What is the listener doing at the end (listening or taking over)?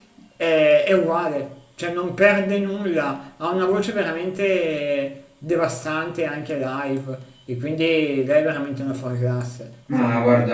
taking over